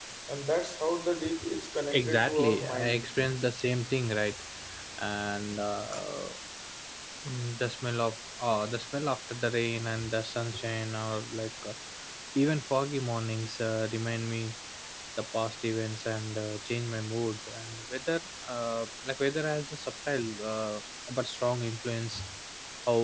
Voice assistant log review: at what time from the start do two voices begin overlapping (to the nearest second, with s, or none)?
2 s